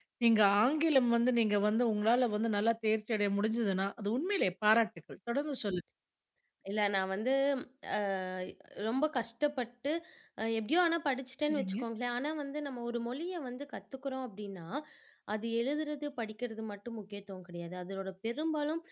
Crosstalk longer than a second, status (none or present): none